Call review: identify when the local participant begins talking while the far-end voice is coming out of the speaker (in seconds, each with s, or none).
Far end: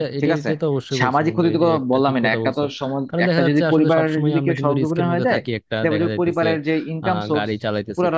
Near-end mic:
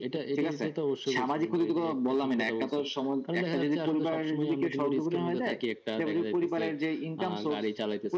none